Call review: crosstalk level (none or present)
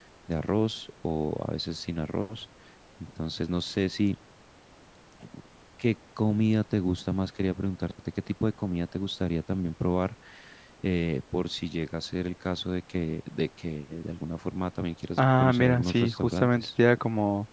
present